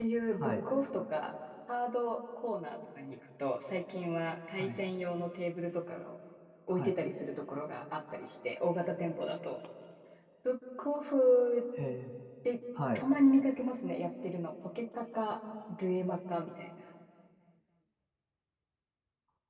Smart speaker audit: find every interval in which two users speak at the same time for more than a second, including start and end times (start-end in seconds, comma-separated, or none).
none